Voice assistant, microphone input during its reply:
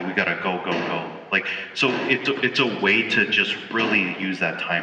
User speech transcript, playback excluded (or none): none